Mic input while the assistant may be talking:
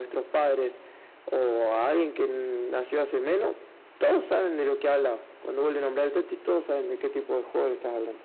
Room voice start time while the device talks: none

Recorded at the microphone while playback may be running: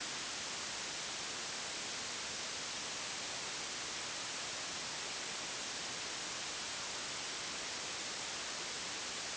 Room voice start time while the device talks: none

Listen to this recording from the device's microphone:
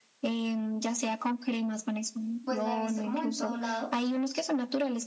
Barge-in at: 2 s

